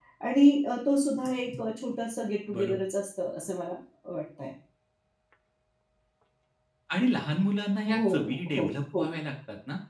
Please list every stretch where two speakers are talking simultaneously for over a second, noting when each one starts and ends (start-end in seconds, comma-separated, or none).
7.9-9.1